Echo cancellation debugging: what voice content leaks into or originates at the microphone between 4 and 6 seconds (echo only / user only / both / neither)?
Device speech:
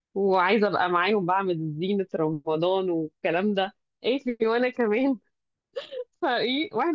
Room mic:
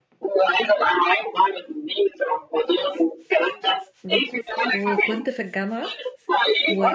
both